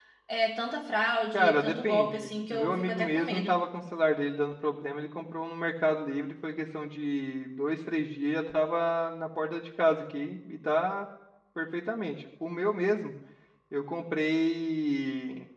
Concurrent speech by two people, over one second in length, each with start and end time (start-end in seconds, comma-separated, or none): 1.3-3.5